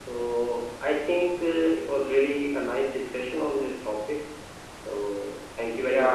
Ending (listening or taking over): taking over